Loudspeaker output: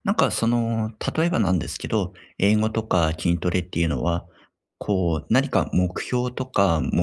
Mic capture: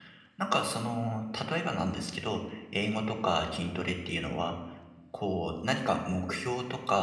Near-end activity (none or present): none